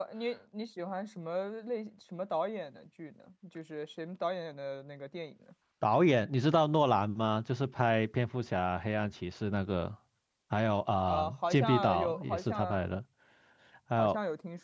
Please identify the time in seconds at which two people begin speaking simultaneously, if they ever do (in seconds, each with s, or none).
11.1 s